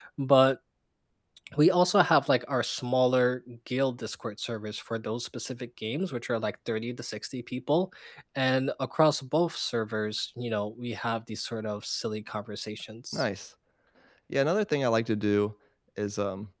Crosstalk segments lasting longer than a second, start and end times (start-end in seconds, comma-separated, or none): none